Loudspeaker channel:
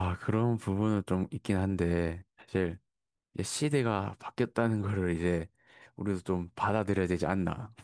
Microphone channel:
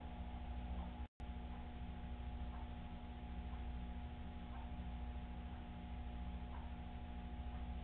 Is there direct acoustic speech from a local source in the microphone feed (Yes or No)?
No